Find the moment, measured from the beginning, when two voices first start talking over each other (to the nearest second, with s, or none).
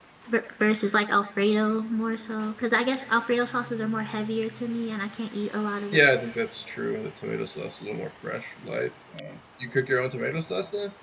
none